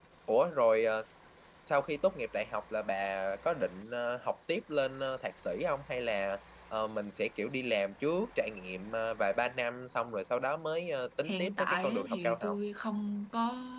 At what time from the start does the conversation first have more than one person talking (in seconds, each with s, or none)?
11.2 s